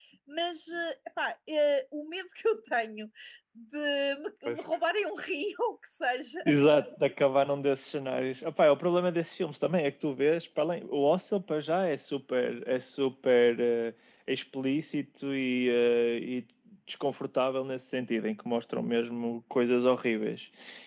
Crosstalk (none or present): none